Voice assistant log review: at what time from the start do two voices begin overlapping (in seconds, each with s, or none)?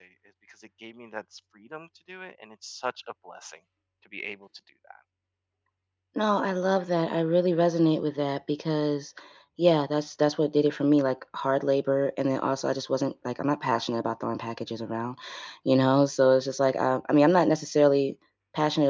none